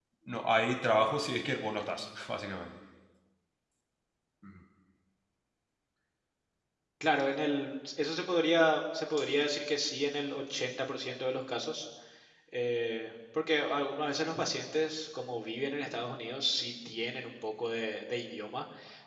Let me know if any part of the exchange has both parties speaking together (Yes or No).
No